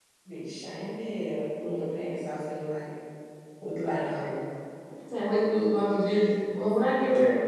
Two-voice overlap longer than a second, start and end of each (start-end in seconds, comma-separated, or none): none